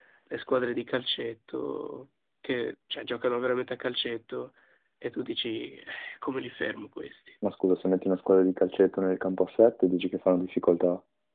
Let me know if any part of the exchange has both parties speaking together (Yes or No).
No